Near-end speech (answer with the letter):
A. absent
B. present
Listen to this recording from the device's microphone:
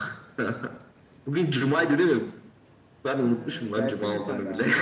B